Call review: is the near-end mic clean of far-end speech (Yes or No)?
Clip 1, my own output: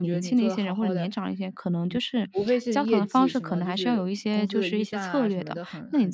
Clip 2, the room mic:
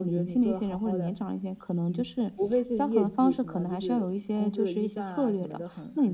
No